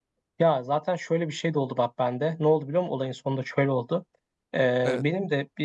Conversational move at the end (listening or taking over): listening